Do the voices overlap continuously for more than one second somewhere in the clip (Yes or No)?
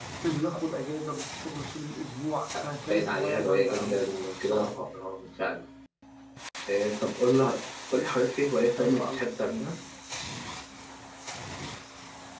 Yes